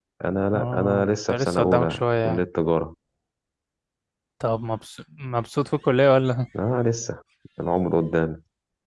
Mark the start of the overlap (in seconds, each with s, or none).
0.6 s